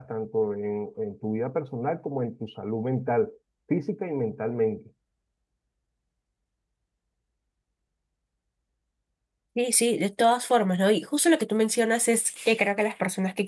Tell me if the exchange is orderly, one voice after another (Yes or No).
Yes